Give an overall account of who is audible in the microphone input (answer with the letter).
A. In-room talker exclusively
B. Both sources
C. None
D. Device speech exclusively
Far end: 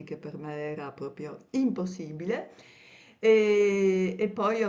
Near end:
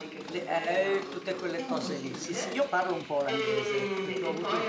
B